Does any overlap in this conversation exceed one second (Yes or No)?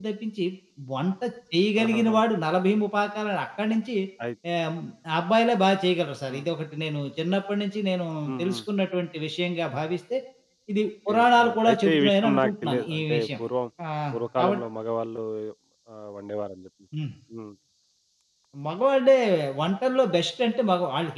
Yes